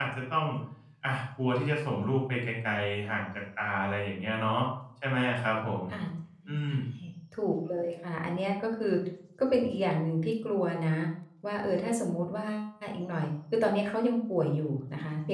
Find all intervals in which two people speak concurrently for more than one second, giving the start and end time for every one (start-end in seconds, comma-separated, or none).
none